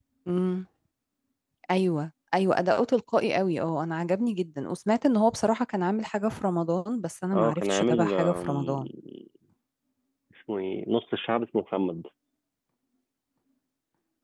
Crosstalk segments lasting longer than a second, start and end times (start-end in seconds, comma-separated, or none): 7.3-8.7